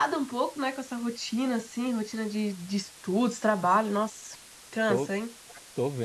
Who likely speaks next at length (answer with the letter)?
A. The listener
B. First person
A